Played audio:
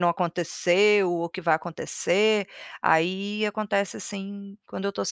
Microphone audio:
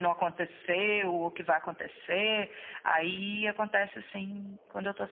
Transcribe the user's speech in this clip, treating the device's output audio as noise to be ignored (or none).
none